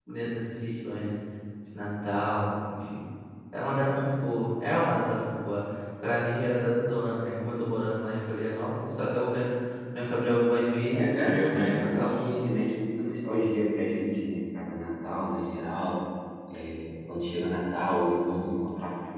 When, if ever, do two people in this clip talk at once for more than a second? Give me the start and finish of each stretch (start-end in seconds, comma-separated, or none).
10.9-12.2